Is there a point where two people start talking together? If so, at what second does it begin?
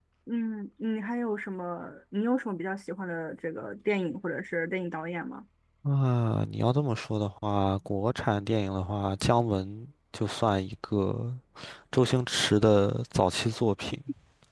none

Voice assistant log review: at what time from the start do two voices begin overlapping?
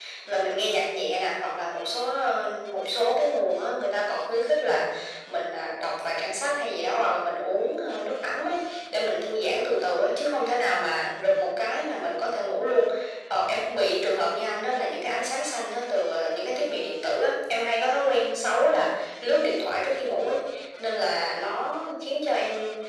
none

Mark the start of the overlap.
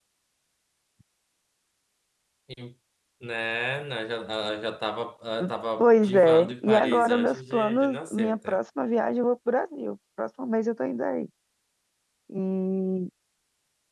5.8 s

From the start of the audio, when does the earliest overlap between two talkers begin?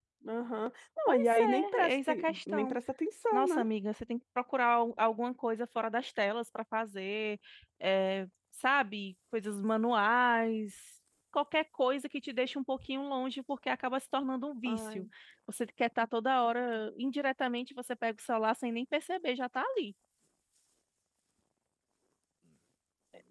1.1 s

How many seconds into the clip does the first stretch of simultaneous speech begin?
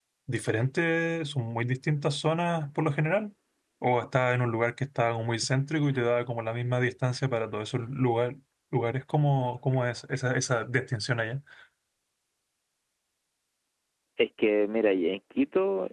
none

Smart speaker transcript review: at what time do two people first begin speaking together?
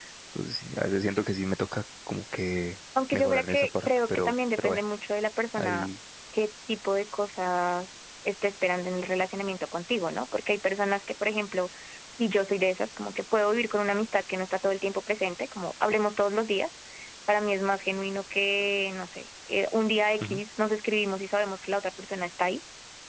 3.1 s

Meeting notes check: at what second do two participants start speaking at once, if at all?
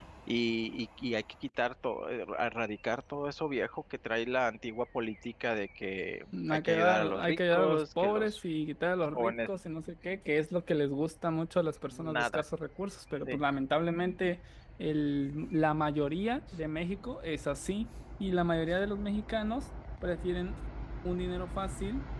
6.5 s

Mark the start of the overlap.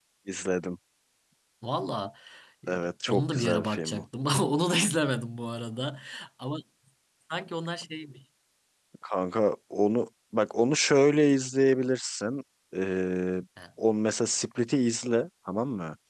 2.7 s

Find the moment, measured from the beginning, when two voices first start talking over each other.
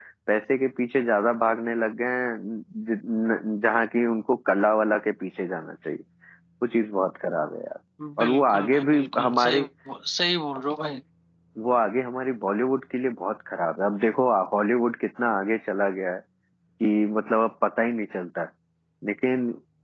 8.2 s

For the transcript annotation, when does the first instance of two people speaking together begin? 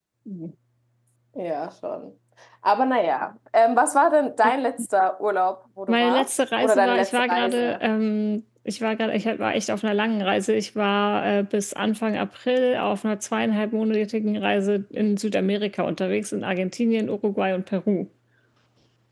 5.9 s

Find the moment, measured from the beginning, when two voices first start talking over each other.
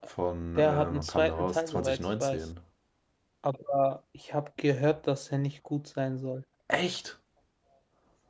0.6 s

